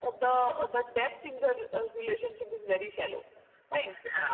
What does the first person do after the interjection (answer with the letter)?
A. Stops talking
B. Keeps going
A